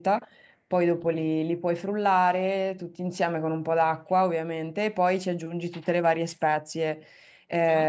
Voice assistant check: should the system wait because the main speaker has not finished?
Yes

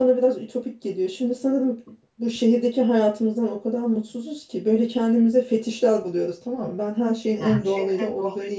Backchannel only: Yes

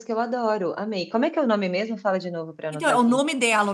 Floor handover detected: Yes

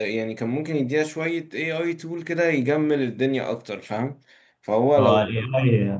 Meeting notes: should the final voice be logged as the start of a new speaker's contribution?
Yes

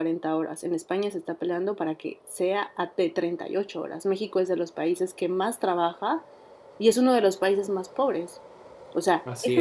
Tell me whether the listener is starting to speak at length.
No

